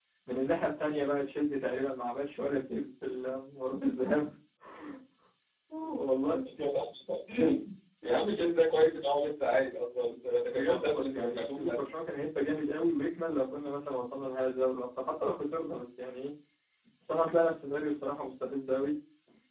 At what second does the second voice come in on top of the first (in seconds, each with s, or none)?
10.5 s